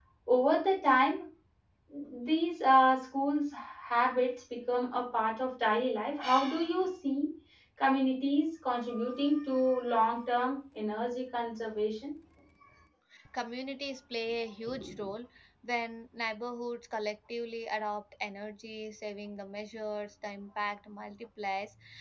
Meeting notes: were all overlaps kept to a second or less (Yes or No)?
Yes